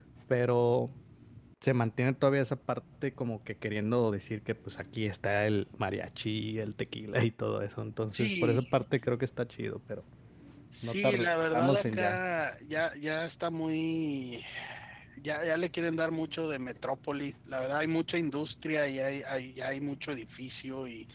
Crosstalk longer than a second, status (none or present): present